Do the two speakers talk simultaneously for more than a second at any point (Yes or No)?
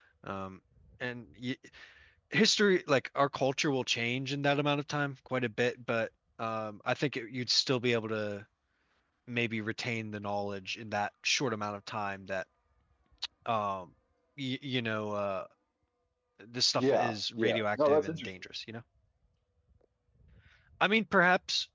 Yes